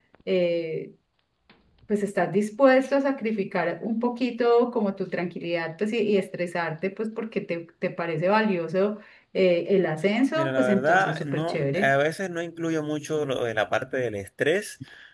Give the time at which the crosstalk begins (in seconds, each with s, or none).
10.3 s